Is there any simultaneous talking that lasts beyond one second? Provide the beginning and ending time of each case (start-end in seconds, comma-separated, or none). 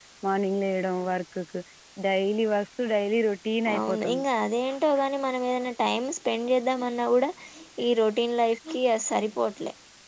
none